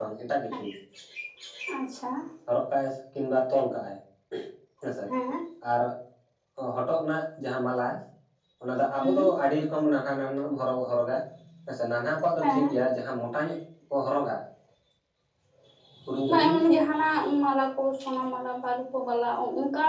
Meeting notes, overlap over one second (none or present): none